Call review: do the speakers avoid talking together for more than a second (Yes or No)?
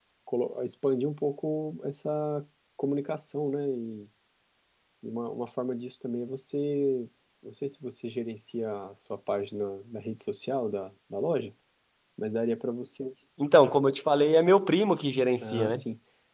Yes